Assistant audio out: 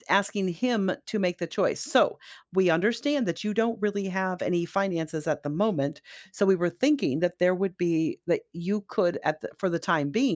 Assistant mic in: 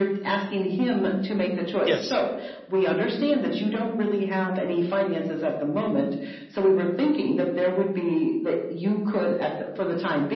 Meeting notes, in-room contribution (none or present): present